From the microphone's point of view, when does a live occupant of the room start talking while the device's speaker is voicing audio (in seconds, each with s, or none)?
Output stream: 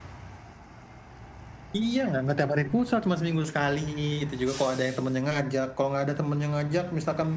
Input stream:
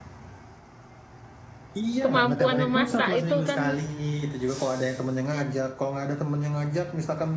2.0 s